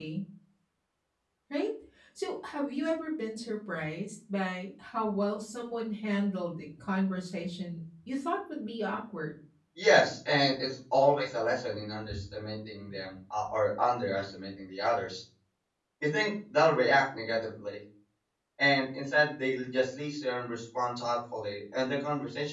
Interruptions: none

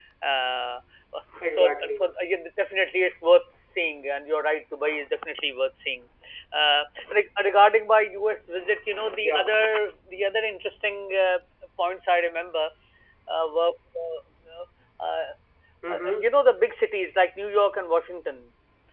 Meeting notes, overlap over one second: none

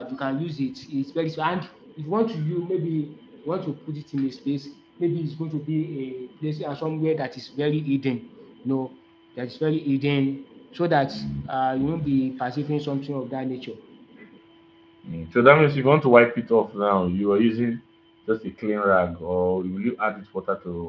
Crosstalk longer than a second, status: none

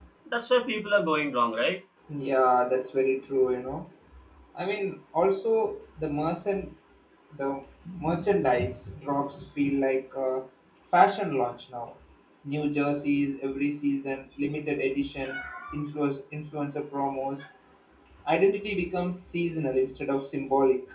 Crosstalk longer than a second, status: none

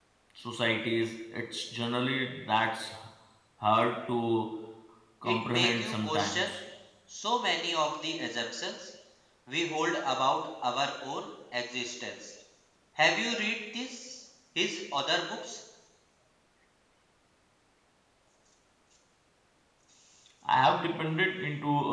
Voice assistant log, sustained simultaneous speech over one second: present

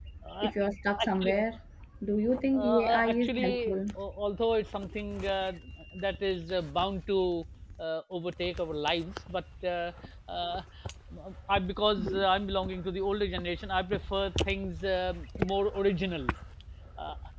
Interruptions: present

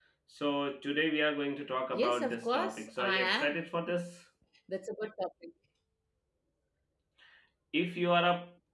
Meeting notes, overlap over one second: present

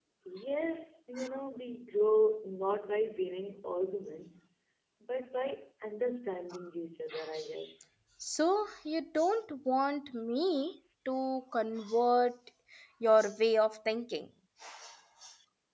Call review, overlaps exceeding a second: none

